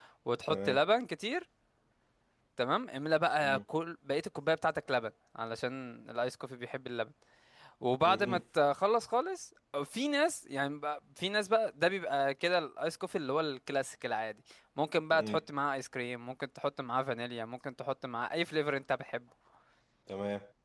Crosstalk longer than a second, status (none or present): none